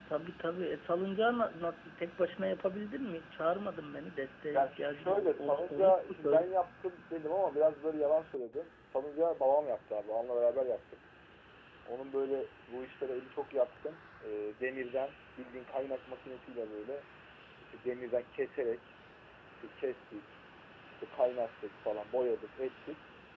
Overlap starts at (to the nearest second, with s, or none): 5 s